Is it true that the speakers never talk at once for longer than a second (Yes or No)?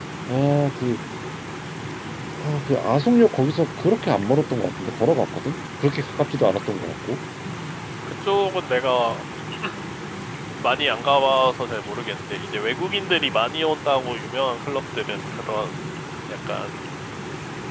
Yes